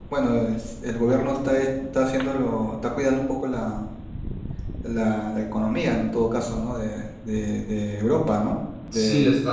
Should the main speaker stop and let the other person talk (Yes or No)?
Yes